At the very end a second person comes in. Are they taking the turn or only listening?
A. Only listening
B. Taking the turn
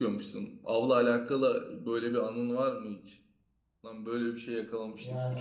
B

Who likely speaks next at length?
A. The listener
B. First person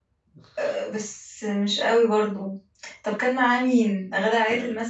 A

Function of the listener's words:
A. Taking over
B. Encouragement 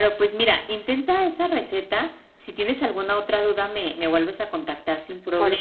A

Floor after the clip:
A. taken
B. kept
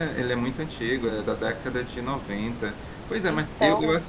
B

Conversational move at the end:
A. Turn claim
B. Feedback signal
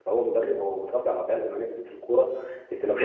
B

